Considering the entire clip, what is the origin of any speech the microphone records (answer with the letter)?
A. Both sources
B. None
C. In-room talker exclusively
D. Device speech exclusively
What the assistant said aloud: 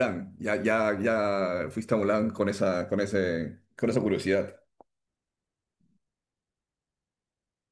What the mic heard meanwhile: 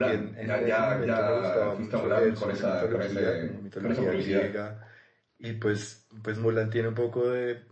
A